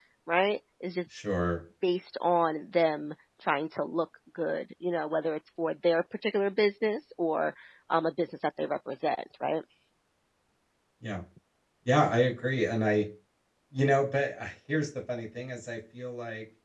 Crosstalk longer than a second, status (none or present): none